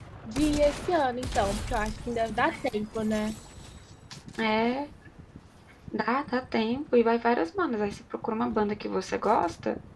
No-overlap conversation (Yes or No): Yes